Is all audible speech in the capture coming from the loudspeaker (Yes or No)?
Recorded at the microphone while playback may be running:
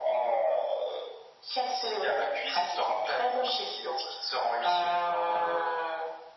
Yes